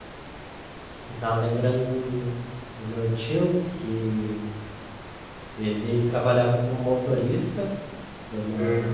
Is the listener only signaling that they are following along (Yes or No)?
Yes